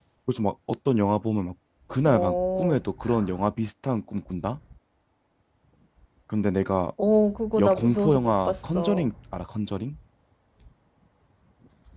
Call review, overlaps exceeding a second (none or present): present